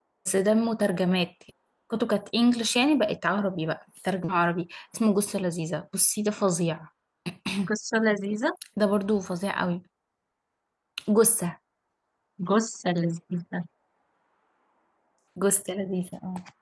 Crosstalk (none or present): none